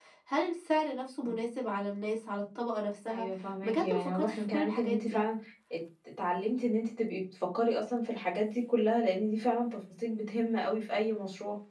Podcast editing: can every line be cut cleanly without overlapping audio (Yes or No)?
No